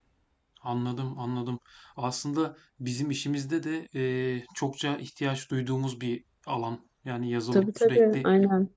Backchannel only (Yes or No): No